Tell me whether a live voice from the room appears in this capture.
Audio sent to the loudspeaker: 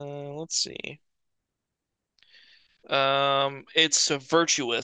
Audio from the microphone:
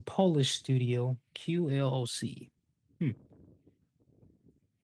Yes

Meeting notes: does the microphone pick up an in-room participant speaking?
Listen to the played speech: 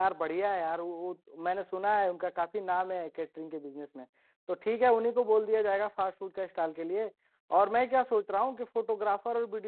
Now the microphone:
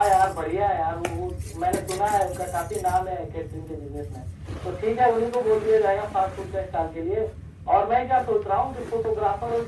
No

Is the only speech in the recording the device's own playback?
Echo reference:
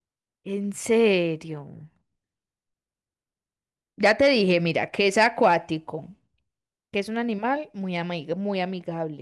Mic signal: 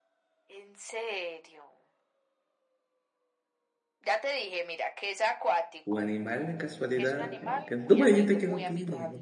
No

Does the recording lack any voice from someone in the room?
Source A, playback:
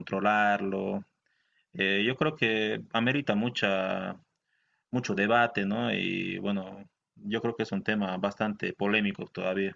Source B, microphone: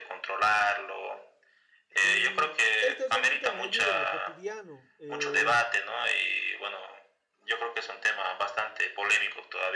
No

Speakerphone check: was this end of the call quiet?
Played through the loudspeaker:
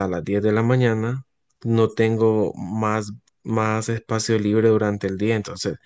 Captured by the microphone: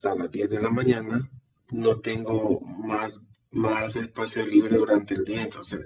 Yes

